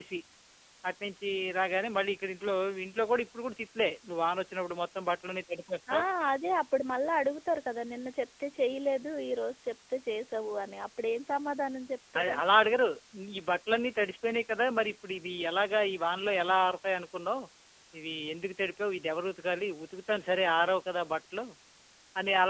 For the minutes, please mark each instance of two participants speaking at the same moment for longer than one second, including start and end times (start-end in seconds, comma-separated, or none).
none